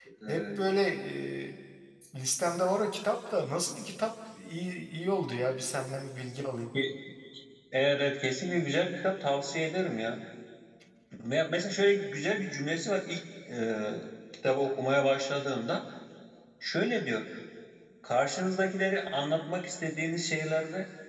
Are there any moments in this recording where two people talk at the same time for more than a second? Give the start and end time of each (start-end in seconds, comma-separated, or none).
none